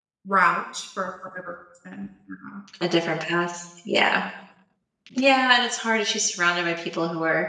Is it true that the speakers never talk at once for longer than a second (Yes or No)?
Yes